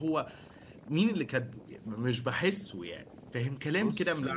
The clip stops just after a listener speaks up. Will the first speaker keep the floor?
Yes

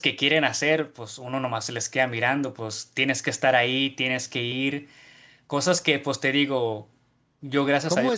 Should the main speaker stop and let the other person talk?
Yes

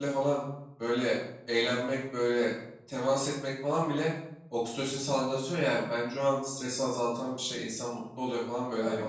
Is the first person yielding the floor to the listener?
Yes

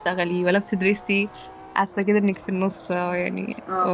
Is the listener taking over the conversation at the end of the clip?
Yes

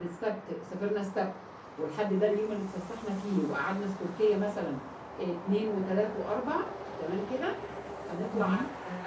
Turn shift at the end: No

